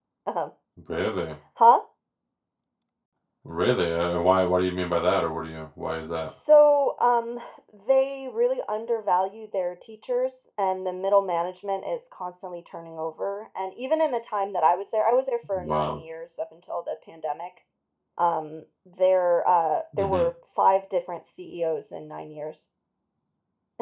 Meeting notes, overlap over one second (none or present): none